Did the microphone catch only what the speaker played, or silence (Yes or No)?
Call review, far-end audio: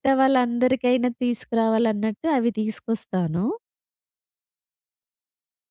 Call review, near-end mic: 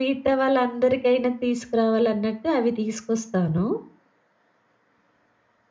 Yes